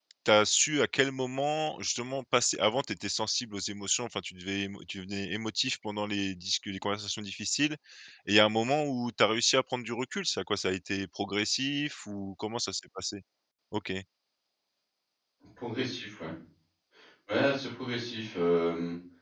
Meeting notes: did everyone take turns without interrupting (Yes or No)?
Yes